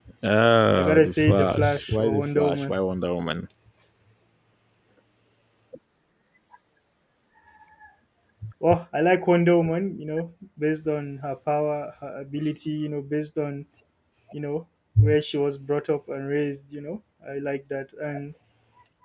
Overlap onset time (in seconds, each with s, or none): 0.8 s